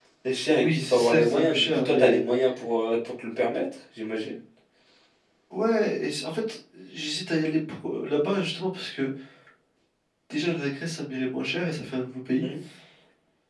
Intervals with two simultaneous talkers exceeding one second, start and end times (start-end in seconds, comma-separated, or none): 0.6-2.2